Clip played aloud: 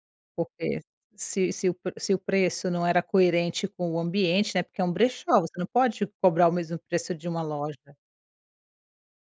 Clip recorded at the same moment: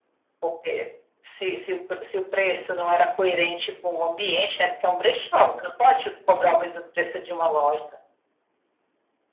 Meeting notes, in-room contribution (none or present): none